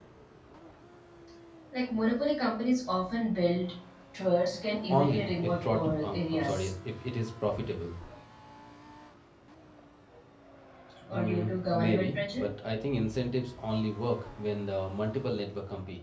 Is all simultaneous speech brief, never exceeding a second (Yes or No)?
No